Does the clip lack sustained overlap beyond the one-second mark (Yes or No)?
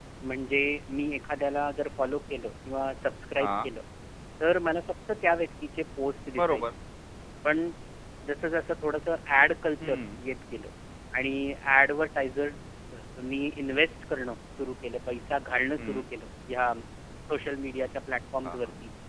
Yes